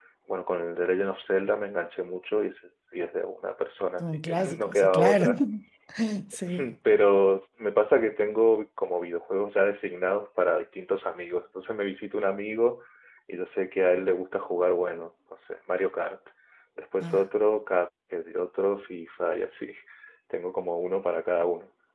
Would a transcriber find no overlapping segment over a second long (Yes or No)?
No